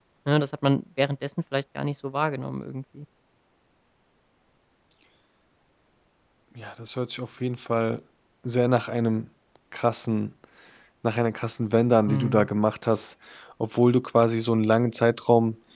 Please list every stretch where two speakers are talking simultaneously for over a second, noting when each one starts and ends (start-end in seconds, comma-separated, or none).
none